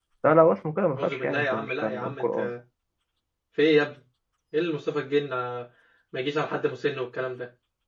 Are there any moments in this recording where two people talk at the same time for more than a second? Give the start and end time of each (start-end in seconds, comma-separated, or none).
0.9-2.5